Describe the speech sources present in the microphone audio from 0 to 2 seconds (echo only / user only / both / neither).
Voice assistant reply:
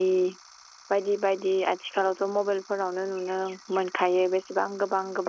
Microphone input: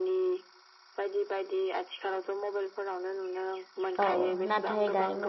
echo only